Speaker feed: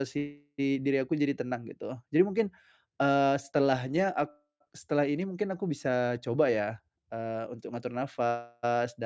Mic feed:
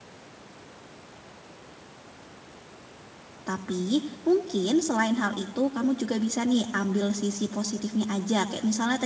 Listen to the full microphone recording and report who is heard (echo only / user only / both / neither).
user only